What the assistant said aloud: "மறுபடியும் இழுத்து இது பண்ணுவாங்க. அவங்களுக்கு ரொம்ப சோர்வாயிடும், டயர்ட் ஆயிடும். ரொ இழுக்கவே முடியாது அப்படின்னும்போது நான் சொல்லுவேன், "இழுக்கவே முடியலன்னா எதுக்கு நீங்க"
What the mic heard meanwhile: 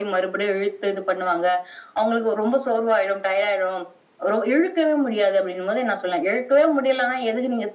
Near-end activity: none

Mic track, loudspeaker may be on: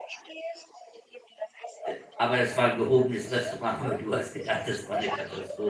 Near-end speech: present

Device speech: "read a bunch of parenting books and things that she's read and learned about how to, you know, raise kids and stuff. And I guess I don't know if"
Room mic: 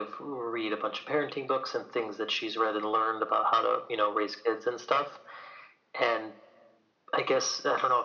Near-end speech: none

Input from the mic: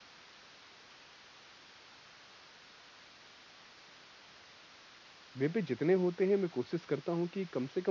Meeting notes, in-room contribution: present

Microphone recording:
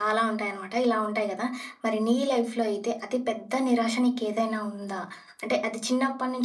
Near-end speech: present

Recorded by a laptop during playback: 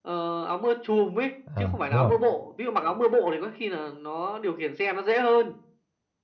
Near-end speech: present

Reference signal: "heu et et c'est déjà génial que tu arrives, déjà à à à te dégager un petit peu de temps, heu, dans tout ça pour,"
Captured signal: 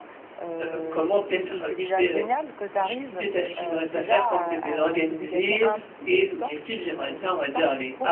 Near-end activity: present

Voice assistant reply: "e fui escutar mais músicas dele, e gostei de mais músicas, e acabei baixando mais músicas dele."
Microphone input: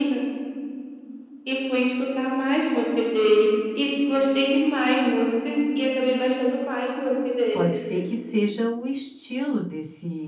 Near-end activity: present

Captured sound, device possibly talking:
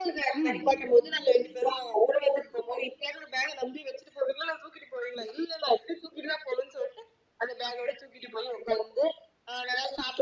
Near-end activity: present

